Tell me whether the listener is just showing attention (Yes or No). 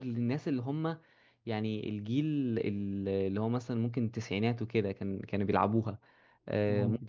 Yes